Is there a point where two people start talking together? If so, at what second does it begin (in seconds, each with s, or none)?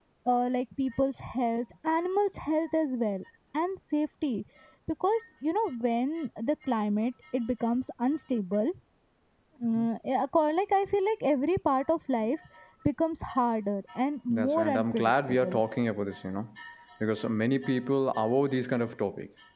14.3 s